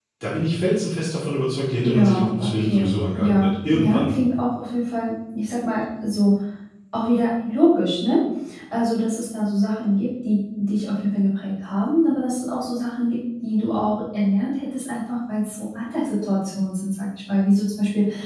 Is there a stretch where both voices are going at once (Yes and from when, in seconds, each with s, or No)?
Yes, from 1.8 s